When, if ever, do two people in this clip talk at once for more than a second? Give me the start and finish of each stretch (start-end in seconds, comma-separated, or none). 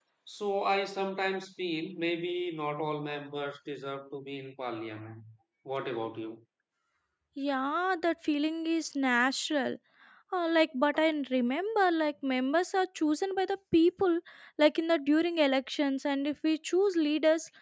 none